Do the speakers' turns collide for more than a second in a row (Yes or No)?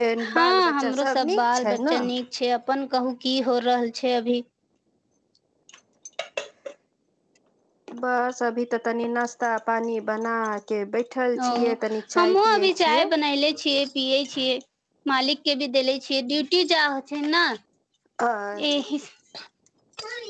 Yes